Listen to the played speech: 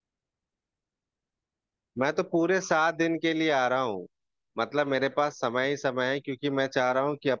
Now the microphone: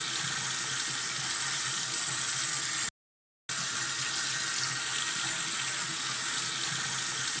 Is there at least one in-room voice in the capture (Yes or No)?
No